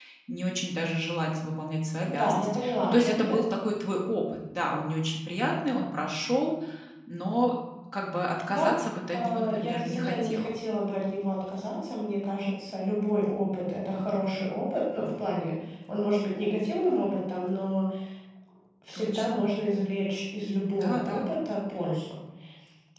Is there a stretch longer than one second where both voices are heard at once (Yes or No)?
Yes